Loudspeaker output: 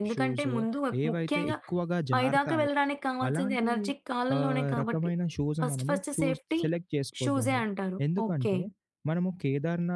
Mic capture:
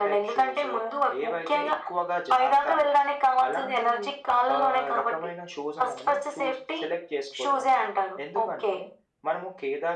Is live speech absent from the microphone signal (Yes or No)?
Yes